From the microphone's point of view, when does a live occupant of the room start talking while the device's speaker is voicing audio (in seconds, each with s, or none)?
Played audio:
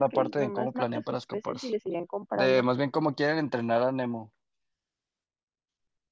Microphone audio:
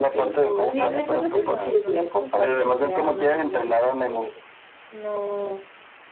0.6 s